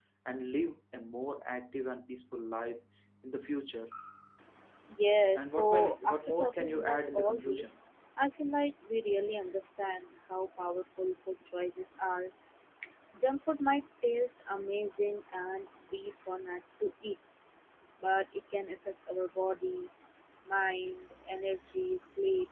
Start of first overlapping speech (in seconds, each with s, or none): 5.3 s